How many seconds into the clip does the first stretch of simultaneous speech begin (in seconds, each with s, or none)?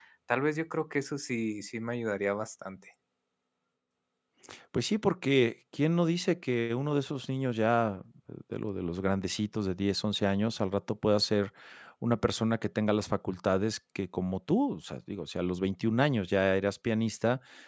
none